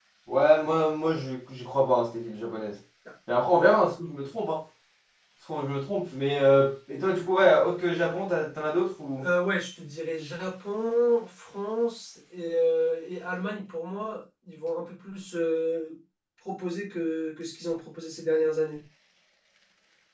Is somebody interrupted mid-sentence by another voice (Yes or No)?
No